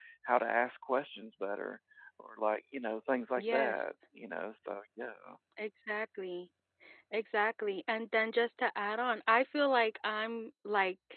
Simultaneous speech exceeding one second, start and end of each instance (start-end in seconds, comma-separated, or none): none